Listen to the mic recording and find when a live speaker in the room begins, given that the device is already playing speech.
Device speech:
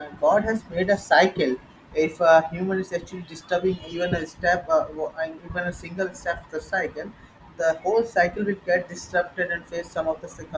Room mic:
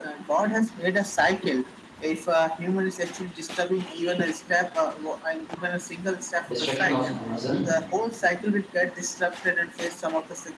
6.5 s

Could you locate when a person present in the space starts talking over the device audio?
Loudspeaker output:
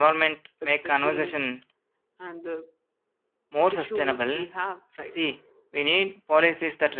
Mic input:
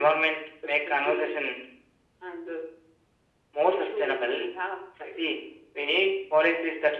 none

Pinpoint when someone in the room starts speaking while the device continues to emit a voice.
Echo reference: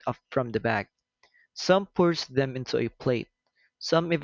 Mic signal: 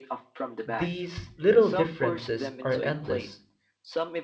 0.6 s

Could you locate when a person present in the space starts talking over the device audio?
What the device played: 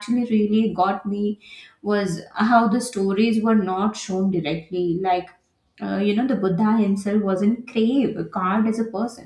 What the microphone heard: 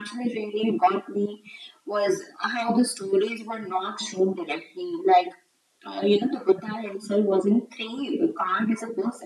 none

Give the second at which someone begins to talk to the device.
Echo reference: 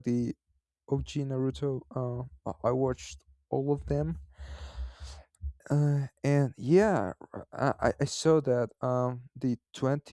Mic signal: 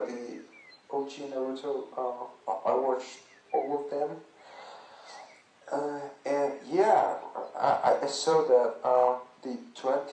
none

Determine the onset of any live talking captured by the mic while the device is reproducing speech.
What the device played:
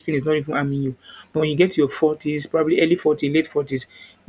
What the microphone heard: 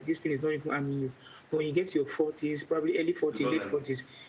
3.3 s

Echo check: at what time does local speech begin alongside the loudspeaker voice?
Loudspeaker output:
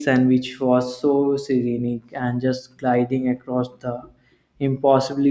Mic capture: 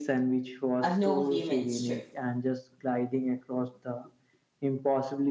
0.8 s

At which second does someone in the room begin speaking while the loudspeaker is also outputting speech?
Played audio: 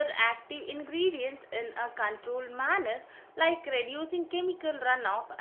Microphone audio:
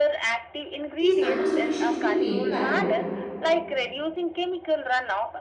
1.0 s

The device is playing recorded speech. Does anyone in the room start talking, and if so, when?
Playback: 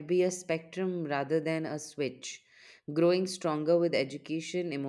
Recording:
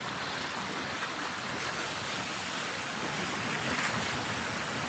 none

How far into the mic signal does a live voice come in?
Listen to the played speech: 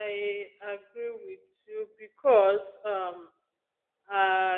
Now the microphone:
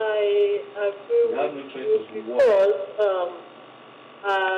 1.2 s

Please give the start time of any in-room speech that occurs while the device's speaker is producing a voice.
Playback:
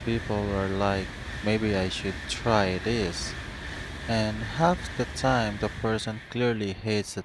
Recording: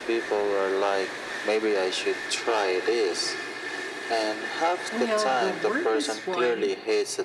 4.9 s

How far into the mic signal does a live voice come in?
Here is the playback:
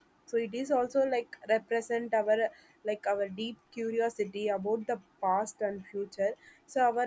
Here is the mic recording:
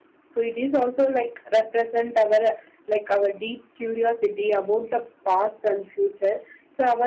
none

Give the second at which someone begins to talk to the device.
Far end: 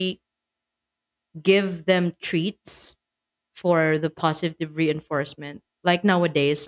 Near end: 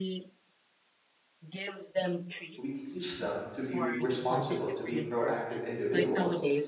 2.6 s

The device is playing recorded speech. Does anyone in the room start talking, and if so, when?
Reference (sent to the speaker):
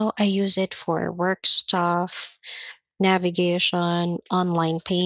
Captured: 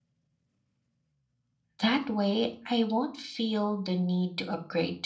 1.8 s

